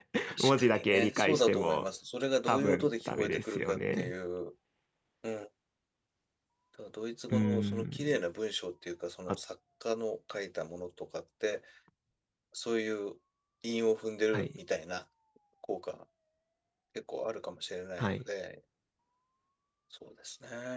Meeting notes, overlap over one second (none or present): present